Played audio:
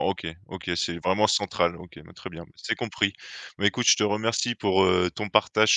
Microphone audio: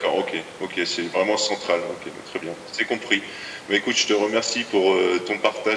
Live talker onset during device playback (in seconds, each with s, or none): none